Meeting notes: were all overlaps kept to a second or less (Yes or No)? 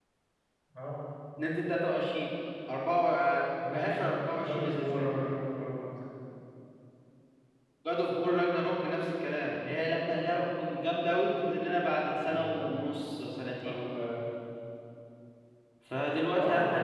No